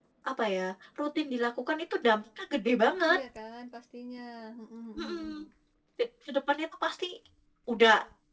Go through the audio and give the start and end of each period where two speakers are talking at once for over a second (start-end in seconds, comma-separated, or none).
none